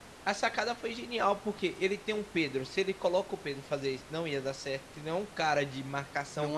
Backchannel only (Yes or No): No